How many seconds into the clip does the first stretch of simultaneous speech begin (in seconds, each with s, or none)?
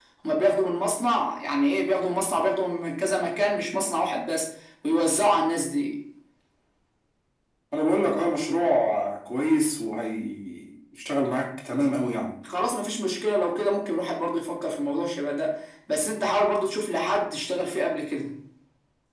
none